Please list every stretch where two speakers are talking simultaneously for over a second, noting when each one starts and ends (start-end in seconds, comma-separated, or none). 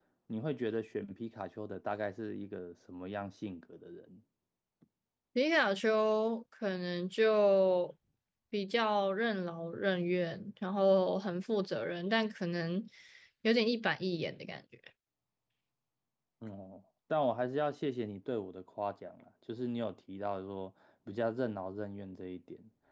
none